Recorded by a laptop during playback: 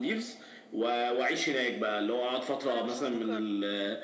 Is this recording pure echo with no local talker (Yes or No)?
No